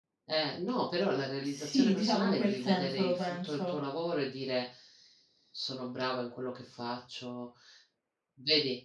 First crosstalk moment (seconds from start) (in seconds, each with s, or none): 1.4 s